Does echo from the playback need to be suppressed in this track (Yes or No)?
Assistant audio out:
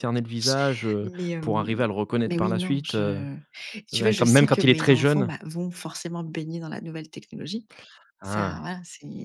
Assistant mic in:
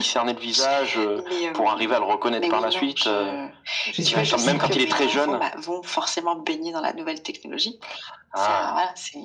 Yes